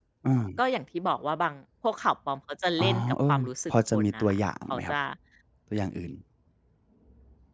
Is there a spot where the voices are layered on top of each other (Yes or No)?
Yes